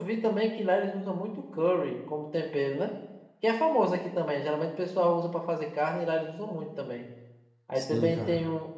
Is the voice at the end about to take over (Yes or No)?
No